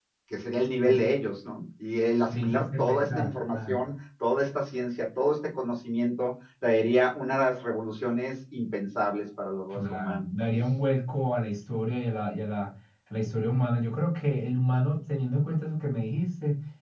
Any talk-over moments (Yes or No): Yes